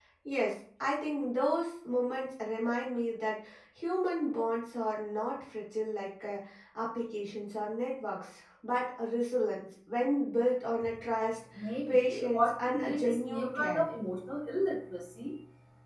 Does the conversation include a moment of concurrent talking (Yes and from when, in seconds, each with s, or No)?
Yes, from 11.9 s